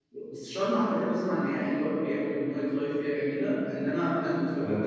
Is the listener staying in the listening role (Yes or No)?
Yes